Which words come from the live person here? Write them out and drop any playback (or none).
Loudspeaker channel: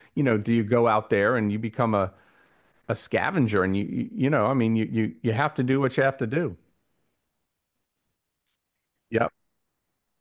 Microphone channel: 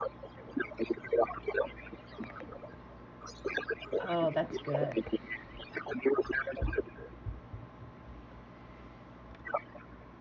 Oh, that's good.